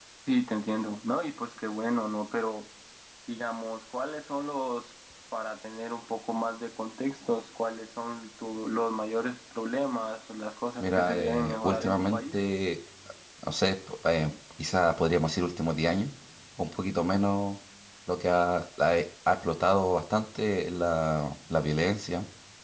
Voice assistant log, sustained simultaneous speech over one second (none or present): present